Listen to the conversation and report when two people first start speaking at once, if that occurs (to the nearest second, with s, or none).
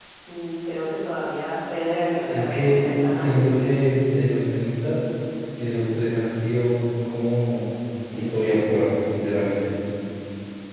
2 s